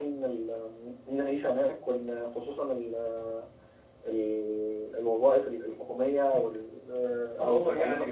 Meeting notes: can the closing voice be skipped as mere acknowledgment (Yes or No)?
No